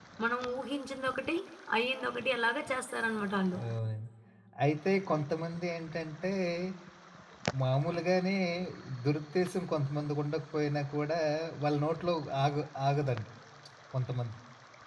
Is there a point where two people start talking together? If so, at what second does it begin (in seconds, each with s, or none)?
none